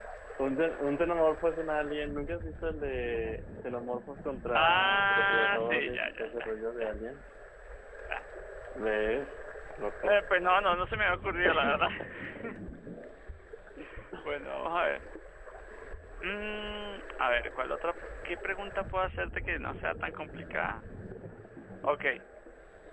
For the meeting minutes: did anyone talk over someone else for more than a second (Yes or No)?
Yes